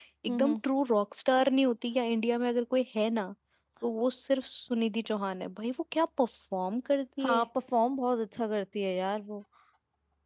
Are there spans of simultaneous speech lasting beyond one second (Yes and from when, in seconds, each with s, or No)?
No